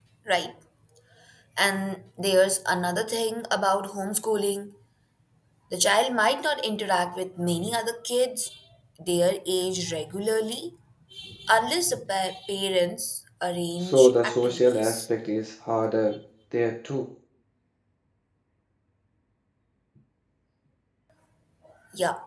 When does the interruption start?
13.8 s

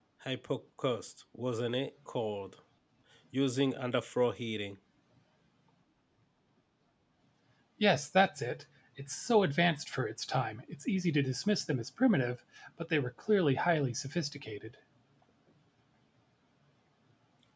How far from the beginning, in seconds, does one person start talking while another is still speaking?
none

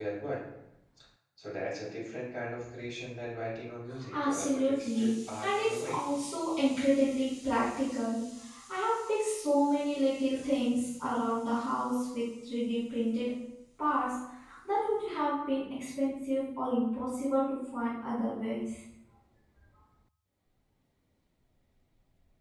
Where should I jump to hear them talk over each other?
4.1 s

